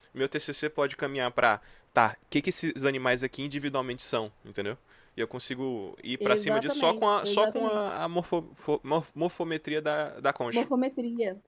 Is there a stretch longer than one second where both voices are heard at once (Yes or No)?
Yes